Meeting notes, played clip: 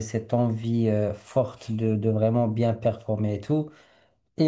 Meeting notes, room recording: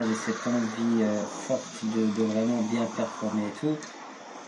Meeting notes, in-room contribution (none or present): none